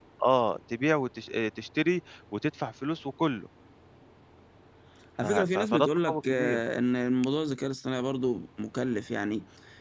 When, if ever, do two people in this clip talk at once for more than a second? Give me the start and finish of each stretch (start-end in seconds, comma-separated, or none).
5.2-6.6